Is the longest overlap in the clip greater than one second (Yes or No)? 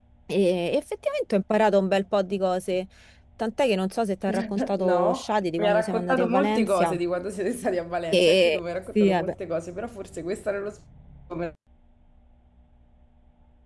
Yes